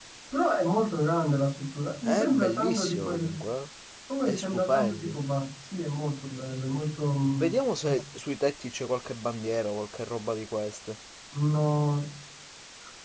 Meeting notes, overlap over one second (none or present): present